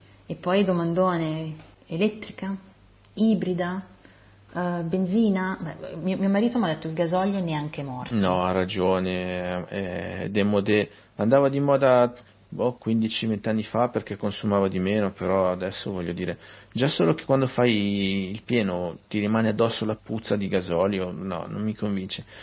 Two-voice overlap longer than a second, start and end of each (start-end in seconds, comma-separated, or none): none